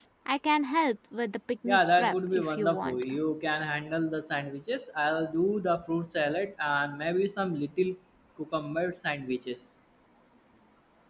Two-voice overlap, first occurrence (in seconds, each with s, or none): 1.6 s